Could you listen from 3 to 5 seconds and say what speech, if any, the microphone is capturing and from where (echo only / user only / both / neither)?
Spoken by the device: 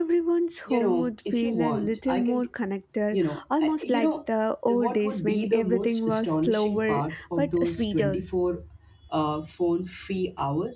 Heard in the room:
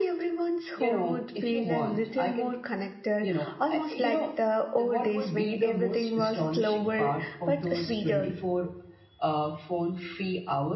echo only